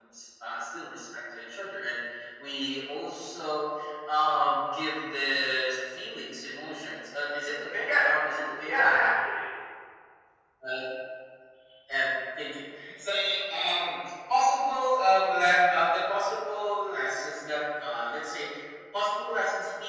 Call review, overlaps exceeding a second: none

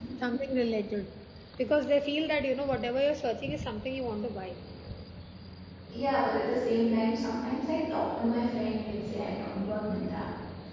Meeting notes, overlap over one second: none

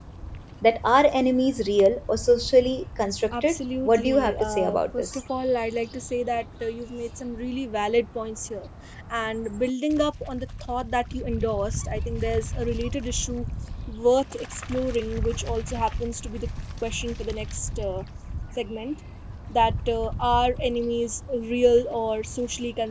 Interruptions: present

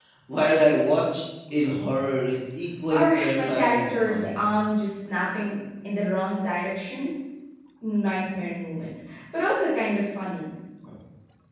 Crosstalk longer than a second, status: present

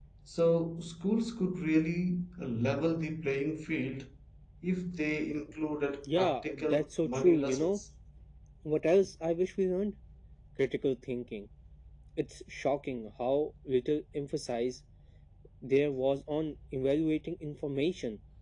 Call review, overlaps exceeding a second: present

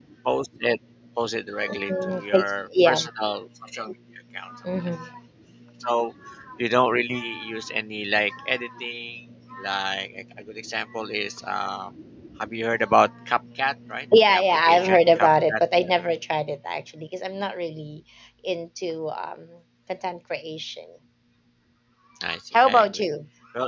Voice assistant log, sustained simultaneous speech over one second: present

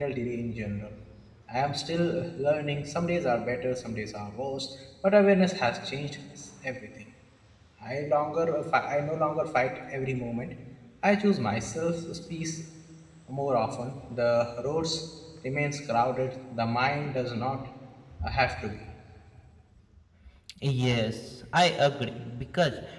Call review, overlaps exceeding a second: none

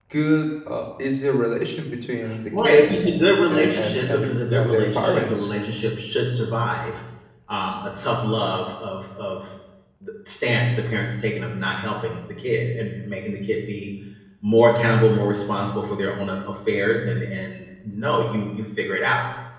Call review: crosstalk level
present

